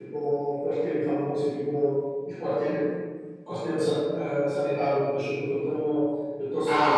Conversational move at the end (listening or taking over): taking over